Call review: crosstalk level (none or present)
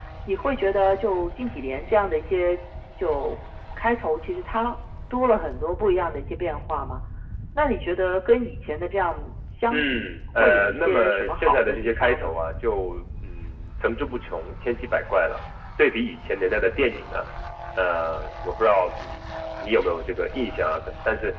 present